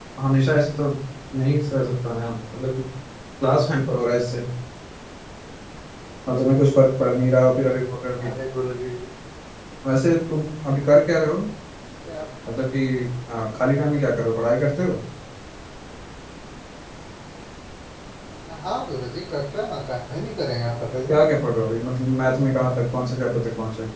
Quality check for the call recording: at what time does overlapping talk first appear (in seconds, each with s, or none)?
none